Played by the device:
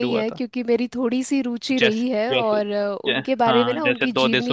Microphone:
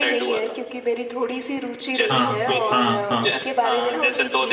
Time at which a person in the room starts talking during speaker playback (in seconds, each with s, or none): 2.1 s